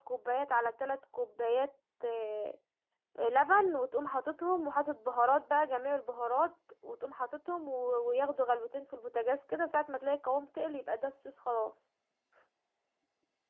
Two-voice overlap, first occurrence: none

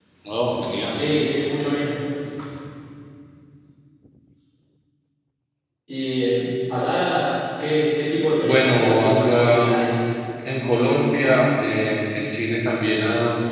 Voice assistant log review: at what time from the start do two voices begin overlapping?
8.4 s

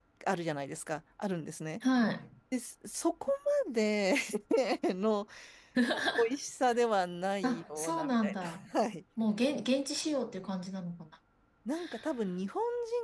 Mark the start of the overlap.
7.4 s

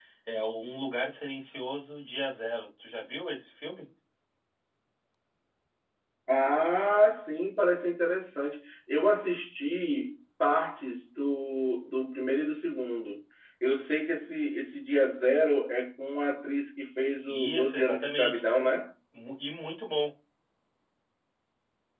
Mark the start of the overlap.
17.3 s

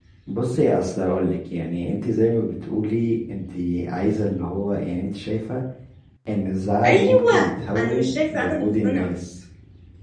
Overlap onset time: 6.8 s

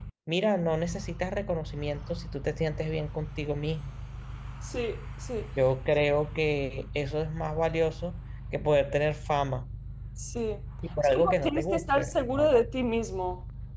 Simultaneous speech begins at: 11.0 s

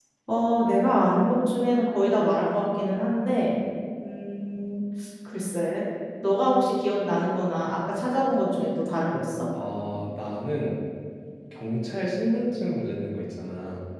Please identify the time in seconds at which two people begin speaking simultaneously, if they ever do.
none

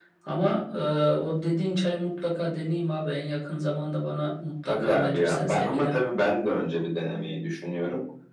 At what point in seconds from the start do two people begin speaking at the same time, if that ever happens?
4.7 s

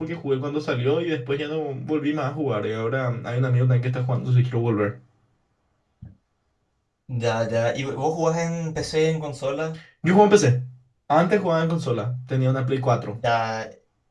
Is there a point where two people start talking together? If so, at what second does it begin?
none

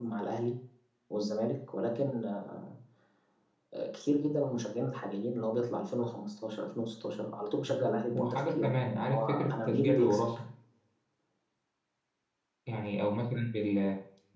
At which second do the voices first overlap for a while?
8.1 s

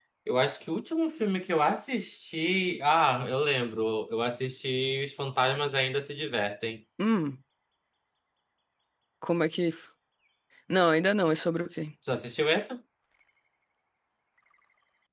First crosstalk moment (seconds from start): none

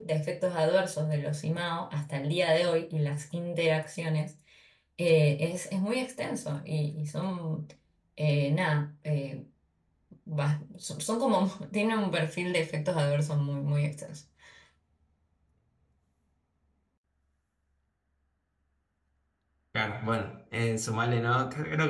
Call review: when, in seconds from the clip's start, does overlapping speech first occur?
none

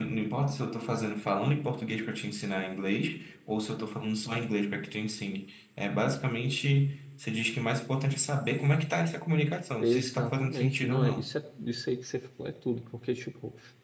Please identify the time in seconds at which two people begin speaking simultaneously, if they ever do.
9.8 s

